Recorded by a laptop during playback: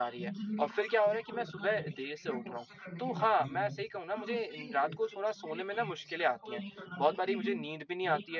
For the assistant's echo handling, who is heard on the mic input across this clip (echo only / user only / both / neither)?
both